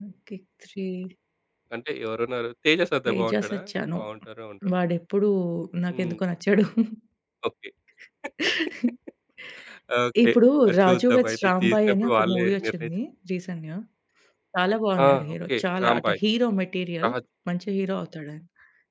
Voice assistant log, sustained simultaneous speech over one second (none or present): present